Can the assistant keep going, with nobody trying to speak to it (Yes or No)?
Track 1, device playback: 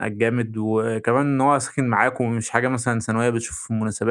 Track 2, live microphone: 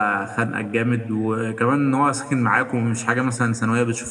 Yes